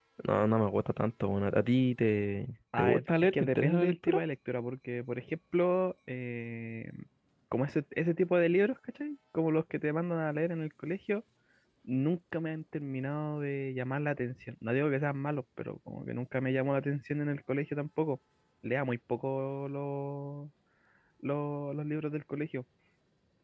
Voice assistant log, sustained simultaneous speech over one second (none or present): present